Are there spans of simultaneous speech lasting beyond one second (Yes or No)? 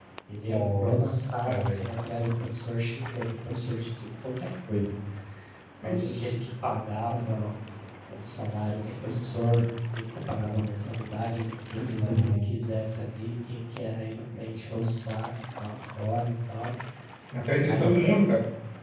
Yes